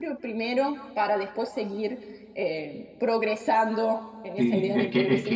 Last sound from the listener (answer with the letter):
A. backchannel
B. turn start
B